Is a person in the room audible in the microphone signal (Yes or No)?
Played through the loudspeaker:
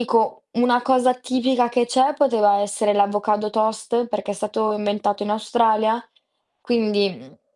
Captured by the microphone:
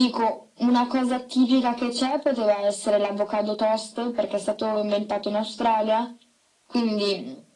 No